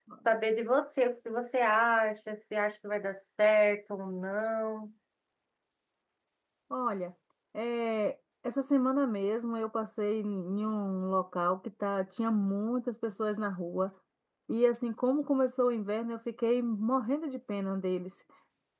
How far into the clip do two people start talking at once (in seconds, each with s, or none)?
none